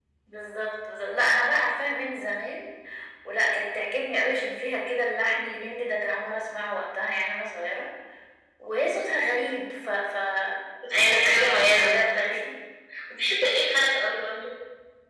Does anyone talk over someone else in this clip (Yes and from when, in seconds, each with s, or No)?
Yes, from 11.0 s